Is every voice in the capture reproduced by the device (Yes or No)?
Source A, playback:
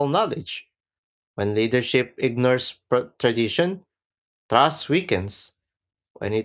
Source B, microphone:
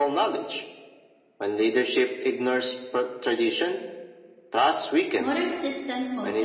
No